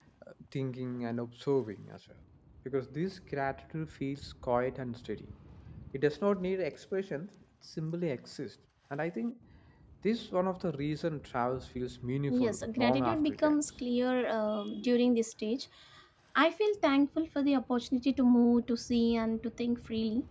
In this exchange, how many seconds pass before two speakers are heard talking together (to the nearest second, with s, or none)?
12 s